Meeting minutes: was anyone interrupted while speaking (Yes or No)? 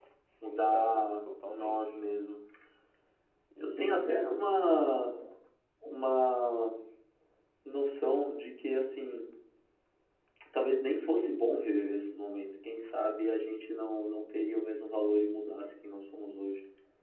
Yes